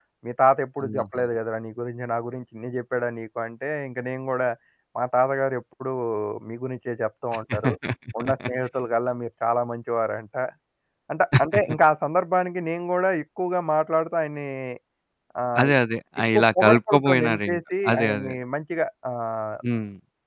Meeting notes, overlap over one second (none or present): present